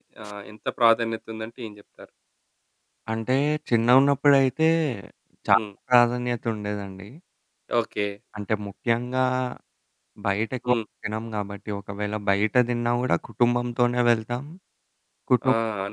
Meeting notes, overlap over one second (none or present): none